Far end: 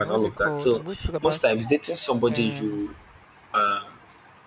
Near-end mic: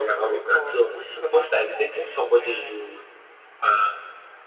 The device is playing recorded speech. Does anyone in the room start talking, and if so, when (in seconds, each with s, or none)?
none